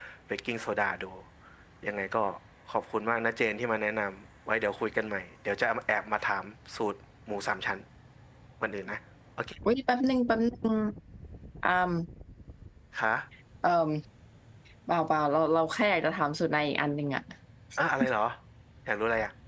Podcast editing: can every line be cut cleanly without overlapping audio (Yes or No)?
Yes